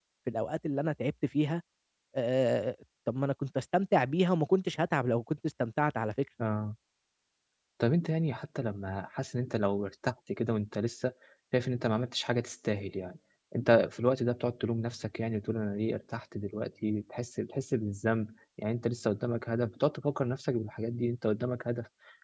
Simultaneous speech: No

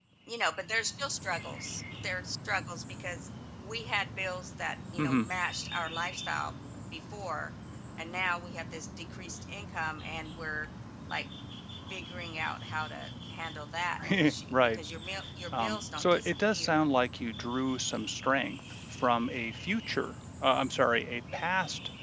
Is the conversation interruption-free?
No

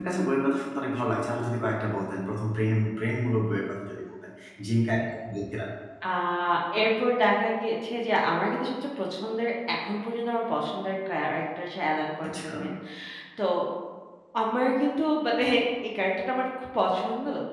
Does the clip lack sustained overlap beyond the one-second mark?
Yes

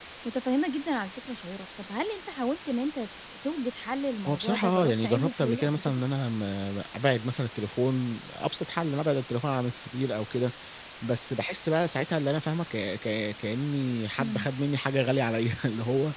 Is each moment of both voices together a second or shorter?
No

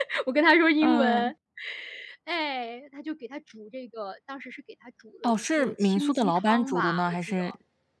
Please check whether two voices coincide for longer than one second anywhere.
Yes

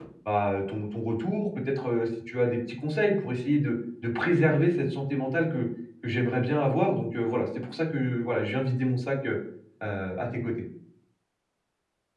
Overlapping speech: No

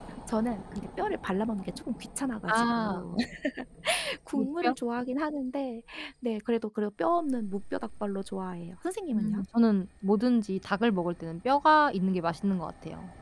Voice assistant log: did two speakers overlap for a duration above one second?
No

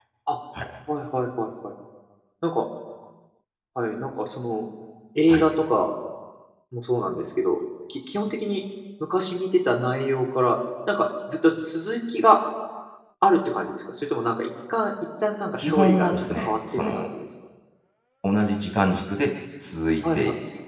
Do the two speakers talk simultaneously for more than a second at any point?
Yes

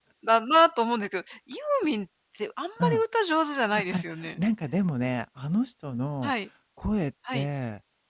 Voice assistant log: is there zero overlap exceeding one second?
Yes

